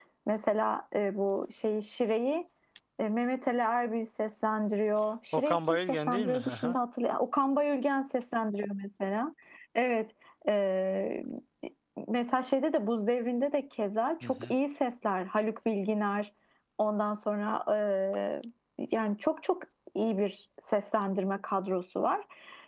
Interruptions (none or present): present